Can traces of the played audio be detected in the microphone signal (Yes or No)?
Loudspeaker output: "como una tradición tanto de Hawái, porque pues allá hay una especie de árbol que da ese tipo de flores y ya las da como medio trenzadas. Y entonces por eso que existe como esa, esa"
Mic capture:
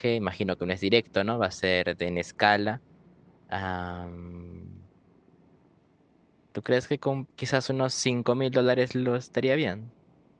No